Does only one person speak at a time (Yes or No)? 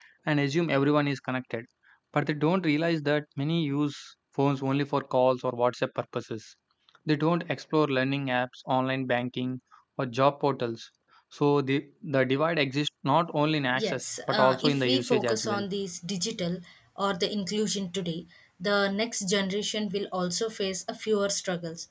No